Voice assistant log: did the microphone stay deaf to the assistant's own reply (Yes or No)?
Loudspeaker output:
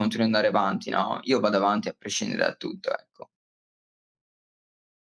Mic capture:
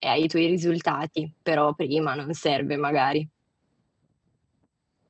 Yes